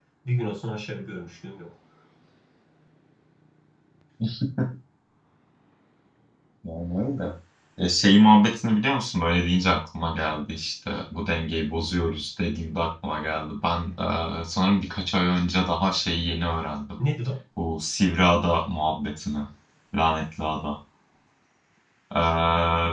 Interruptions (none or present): none